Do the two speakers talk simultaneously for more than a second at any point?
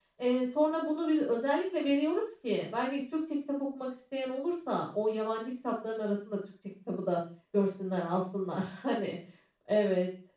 No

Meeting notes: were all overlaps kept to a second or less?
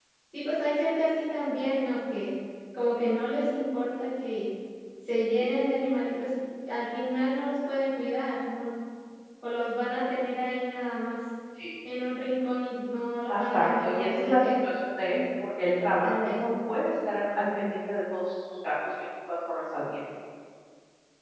No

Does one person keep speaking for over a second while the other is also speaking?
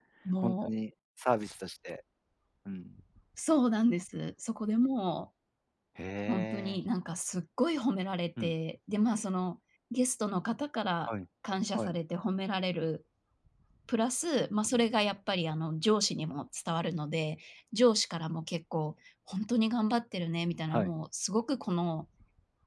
No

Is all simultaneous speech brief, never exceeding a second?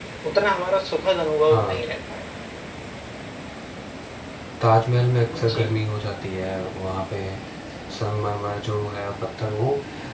Yes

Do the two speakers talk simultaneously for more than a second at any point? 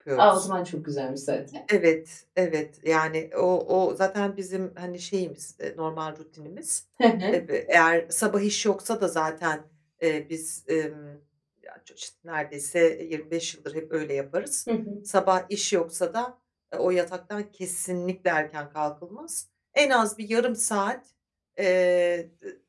No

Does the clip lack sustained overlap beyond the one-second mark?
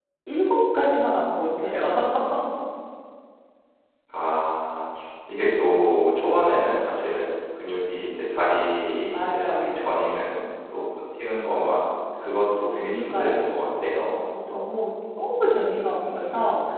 No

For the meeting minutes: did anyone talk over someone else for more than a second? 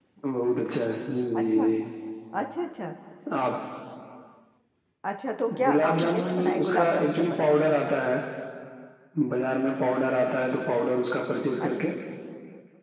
Yes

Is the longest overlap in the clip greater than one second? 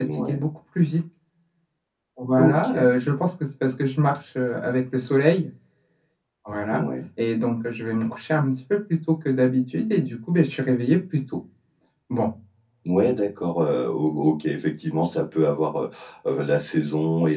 No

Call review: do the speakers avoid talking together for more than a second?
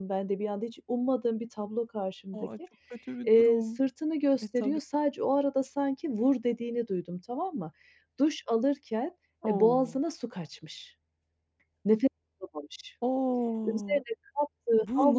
Yes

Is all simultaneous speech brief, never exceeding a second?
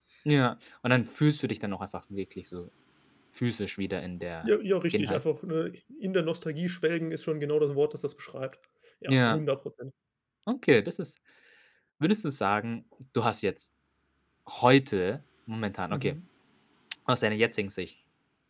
Yes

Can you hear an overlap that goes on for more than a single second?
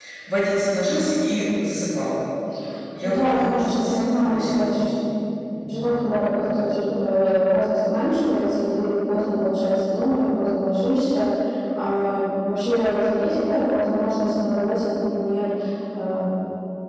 Yes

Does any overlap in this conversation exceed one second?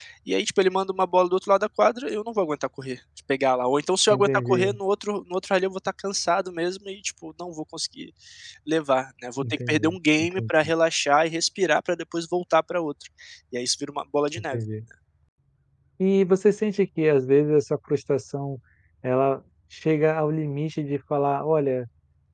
Yes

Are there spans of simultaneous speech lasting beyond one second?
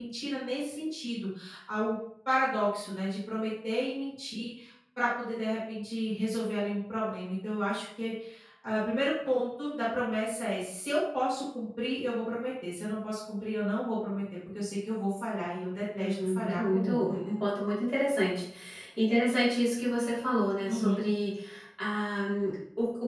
Yes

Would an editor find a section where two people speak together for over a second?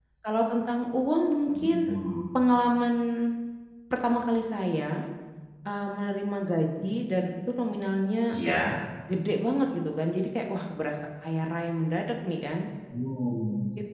No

